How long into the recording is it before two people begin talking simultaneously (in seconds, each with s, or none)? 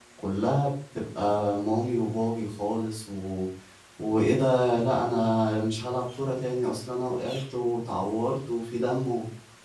none